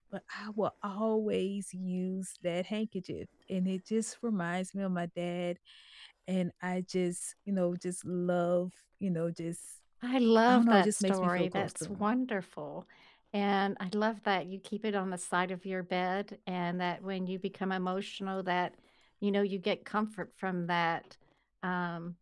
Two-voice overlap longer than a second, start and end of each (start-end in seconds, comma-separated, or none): 10.5-12.0